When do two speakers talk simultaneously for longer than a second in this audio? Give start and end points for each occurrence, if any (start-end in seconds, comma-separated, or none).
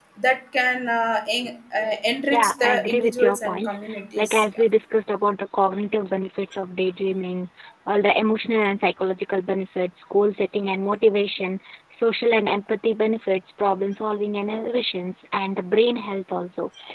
2.3-3.8